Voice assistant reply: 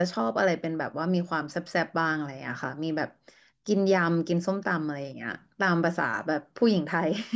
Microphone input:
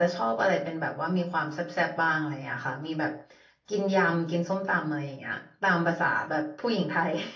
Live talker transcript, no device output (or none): none